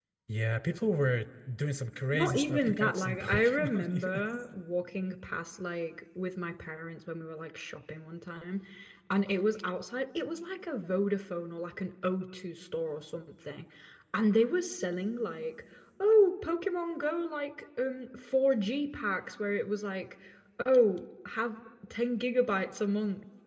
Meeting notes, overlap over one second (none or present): present